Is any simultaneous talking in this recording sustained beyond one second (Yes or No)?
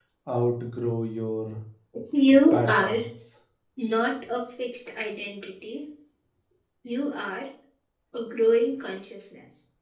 No